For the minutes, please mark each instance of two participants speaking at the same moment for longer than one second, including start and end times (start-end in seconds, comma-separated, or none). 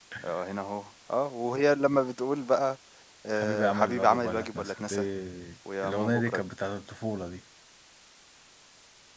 3.3-5.0